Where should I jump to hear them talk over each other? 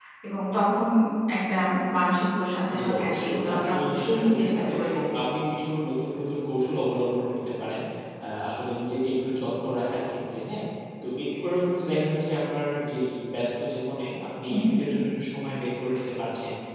2.8 s

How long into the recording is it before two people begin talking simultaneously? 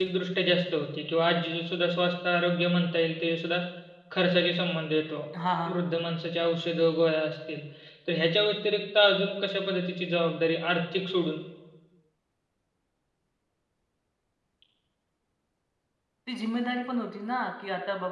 none

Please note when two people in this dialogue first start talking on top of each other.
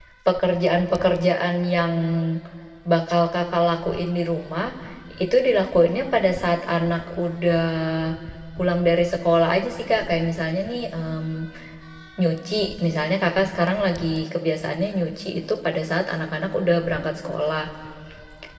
none

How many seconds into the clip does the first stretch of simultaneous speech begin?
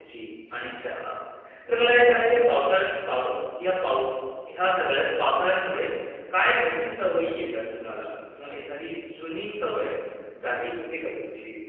none

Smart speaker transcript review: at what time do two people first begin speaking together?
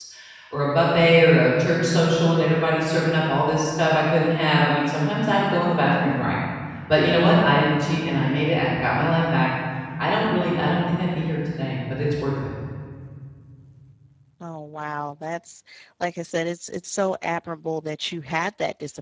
none

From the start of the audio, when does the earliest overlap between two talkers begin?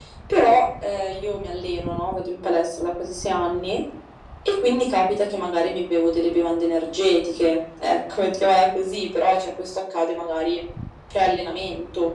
none

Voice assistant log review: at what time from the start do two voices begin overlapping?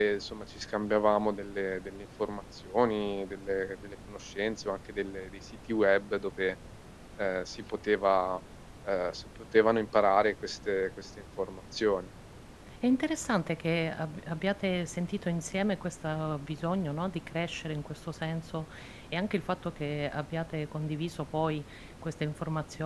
none

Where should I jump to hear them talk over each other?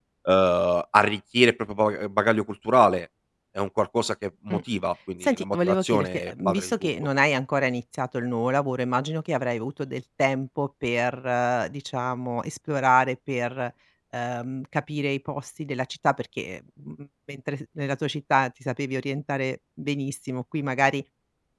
5.2 s

